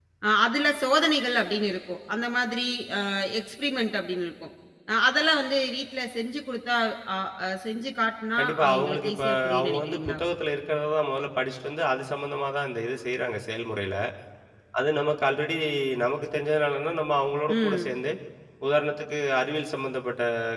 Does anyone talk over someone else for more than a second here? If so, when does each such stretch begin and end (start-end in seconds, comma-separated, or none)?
8.4-10.2